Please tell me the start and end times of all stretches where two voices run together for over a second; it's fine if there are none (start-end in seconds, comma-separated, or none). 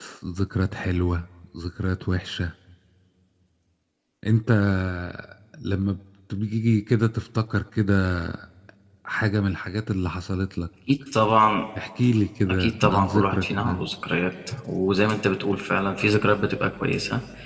12.5-13.8